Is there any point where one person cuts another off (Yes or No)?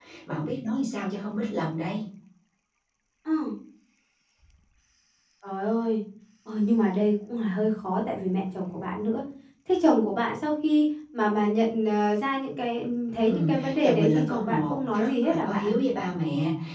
Yes